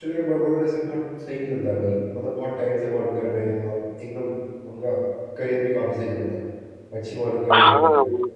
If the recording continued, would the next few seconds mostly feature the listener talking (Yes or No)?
Yes